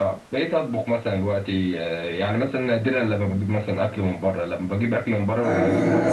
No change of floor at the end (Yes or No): No